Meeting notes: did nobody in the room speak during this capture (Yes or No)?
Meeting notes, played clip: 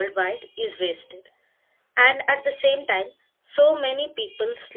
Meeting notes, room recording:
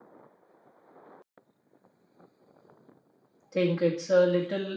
No